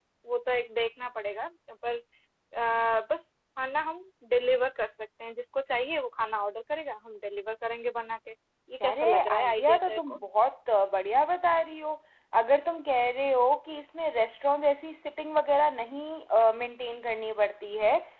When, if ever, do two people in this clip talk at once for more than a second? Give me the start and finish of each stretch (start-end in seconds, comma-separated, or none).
8.8-10.2